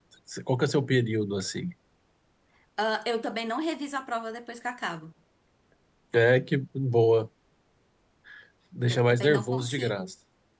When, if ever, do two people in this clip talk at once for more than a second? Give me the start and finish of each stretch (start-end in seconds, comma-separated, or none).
8.9-10.1